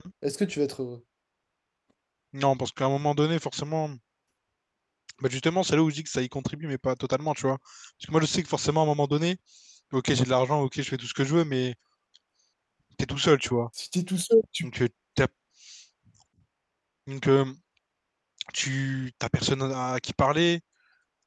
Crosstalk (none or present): none